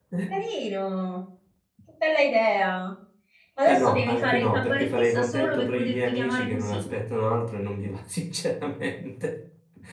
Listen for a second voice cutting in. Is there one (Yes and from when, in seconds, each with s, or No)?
Yes, from 3.6 s